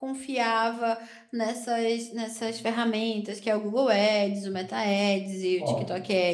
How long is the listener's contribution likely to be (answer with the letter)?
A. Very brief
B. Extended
A